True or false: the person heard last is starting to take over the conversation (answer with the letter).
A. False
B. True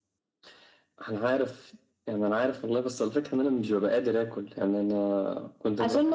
B